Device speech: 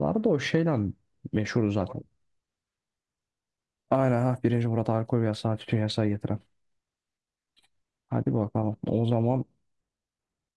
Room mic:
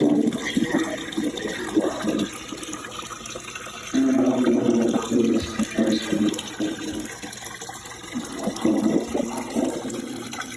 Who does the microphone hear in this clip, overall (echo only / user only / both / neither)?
echo only